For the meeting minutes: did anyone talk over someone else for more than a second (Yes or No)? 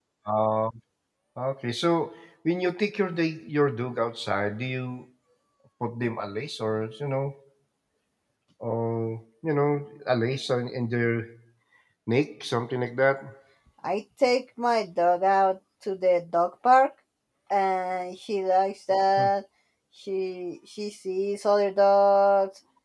No